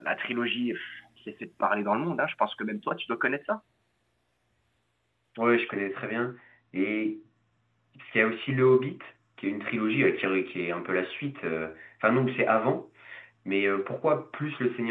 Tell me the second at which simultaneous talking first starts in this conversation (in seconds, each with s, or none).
none